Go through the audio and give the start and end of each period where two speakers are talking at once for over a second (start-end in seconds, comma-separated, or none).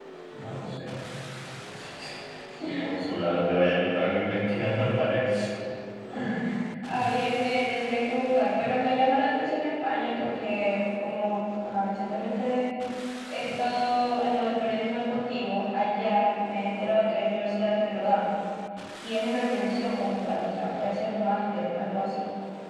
none